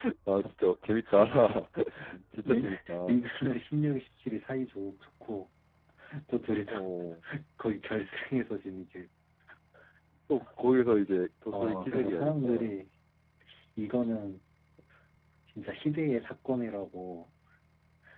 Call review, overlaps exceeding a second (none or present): present